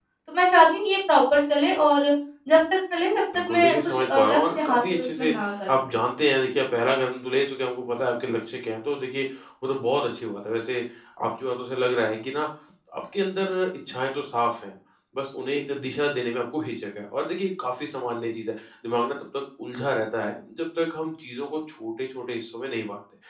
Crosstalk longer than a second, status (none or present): present